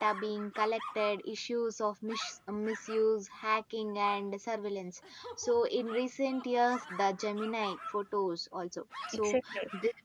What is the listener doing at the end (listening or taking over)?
taking over